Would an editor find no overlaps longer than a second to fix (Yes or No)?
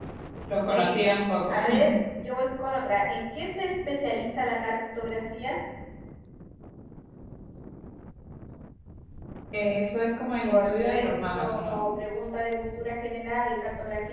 No